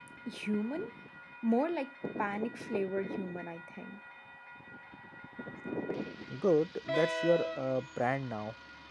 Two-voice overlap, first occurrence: none

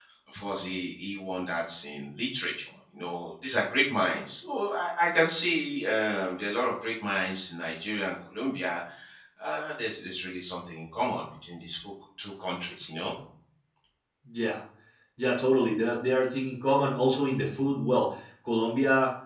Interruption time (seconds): none

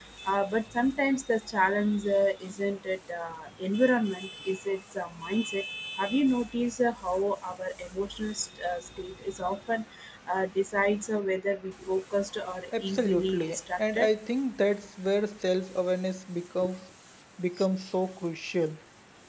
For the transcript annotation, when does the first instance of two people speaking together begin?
12.8 s

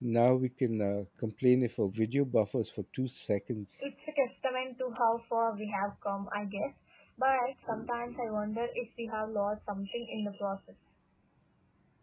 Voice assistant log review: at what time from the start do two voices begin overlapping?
none

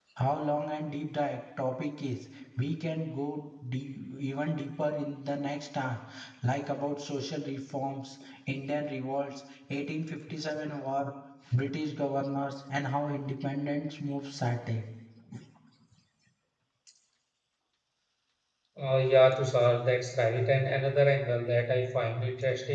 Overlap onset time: none

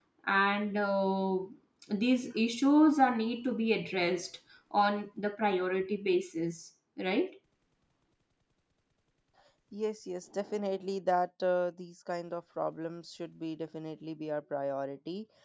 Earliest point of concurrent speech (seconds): none

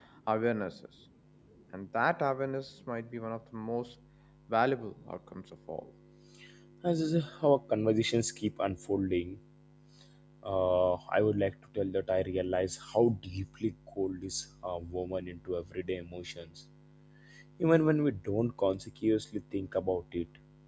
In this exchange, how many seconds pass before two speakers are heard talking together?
none

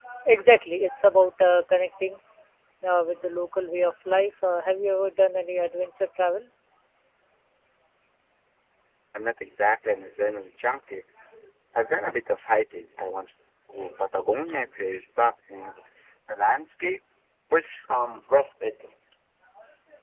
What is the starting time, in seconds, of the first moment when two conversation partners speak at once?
none

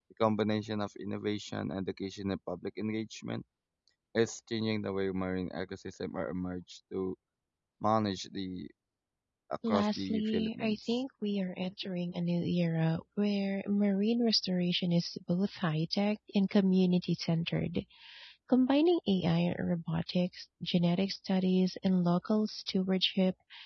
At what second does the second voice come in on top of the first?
9.7 s

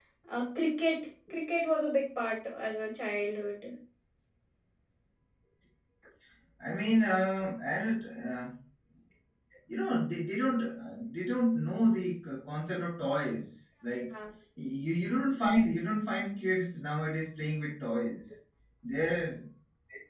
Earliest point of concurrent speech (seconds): none

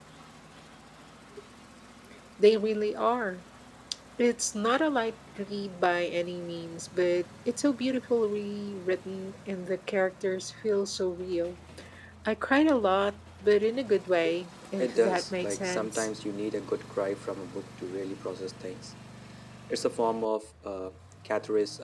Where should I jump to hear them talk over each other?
14.8 s

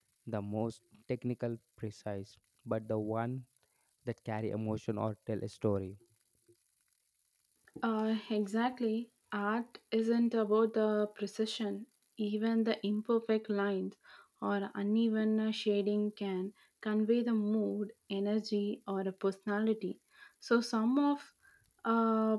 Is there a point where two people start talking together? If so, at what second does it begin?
none

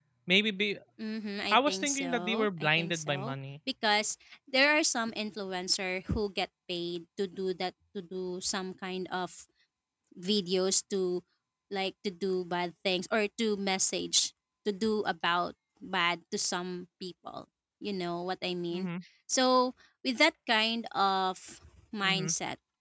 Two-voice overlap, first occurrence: 1.5 s

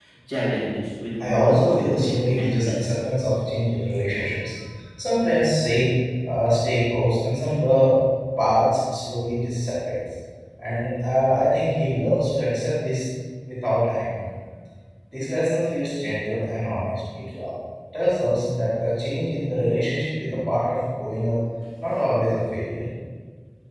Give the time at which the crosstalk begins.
1.2 s

